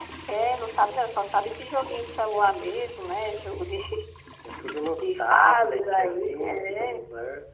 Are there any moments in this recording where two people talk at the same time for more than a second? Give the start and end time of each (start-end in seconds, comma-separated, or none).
5.0-7.0